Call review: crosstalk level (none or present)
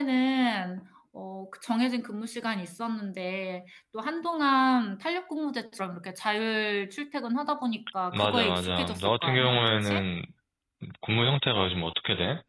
present